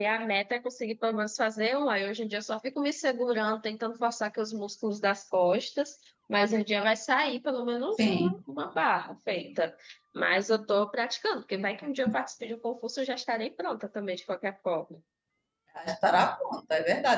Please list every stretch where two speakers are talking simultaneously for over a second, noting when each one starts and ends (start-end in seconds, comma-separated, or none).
none